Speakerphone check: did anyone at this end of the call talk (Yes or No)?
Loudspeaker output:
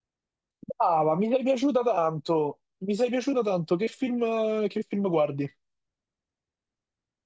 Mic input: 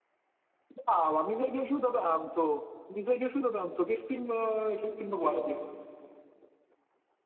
No